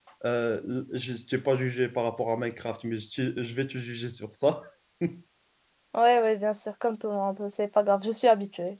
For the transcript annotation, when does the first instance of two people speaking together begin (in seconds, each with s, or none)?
none